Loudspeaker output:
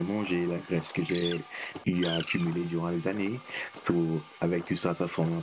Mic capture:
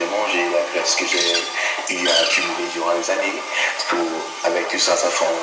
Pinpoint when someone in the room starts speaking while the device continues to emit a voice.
none

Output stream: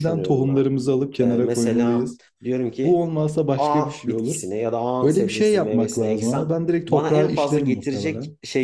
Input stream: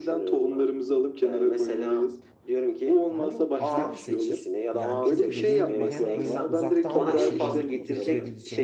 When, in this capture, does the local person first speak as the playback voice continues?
3.1 s

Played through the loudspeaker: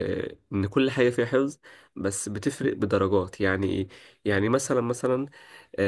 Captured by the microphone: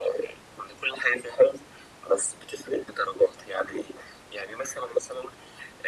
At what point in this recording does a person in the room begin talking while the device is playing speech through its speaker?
none

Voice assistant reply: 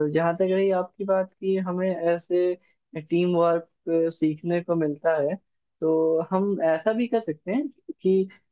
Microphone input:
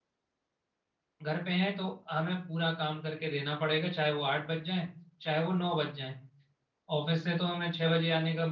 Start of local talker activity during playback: 1.2 s

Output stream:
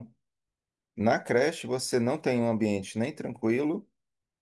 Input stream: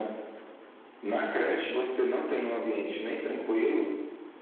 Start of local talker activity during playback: none

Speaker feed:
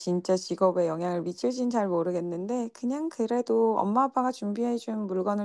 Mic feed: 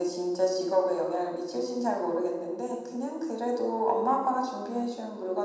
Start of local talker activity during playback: none

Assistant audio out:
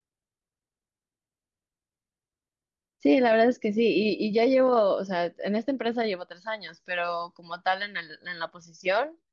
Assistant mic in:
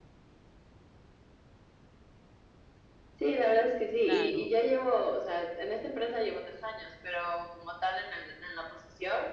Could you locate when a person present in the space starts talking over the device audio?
4.0 s

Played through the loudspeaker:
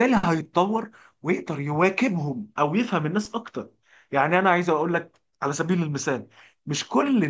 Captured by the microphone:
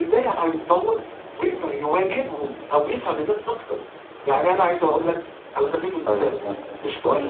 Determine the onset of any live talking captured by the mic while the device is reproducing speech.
6.1 s

